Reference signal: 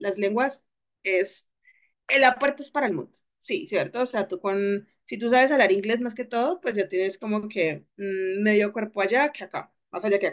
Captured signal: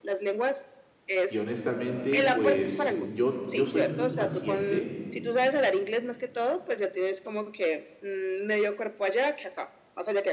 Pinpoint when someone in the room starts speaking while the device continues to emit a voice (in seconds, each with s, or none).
1.3 s